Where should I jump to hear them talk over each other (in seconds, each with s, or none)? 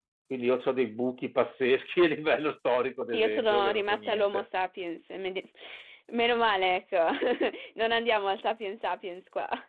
3.1 s